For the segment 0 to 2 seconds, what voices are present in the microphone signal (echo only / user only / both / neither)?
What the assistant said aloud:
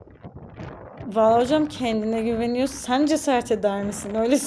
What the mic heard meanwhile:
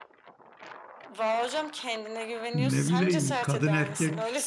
echo only